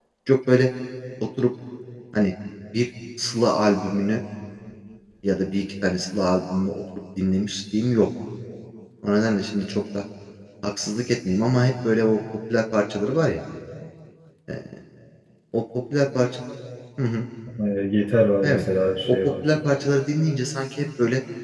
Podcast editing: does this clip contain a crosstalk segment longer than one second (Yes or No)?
No